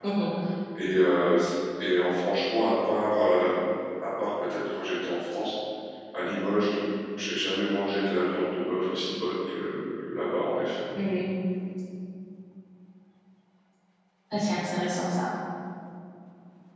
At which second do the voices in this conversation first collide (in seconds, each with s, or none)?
none